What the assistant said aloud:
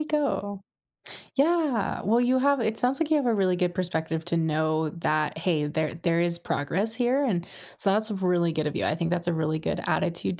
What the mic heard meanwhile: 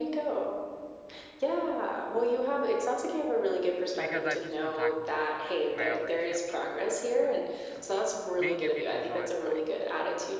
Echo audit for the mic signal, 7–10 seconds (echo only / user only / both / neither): both